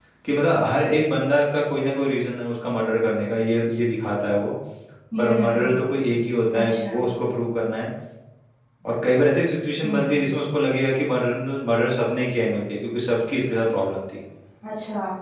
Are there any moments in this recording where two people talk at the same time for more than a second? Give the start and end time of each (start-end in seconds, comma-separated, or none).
none